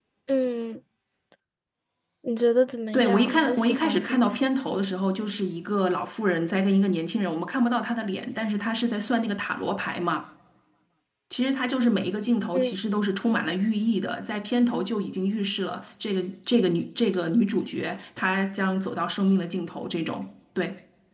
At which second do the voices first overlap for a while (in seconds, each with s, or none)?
2.9 s